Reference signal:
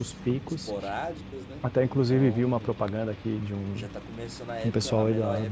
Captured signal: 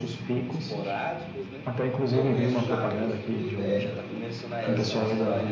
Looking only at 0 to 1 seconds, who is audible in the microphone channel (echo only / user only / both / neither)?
echo only